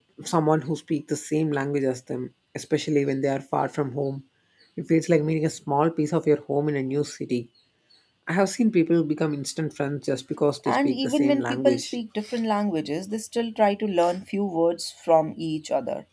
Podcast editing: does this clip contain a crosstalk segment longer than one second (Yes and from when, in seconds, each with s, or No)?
Yes, from 10.6 s